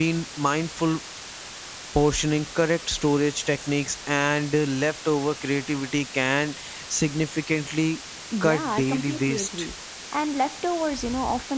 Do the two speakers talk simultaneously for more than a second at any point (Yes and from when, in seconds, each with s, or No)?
Yes, from 8.4 s